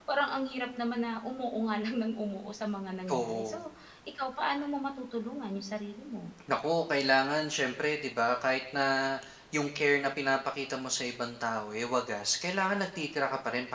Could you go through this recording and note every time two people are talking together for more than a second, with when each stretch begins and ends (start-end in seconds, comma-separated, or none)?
none